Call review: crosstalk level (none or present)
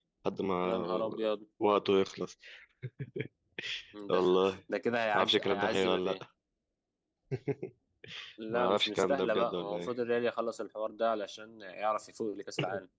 present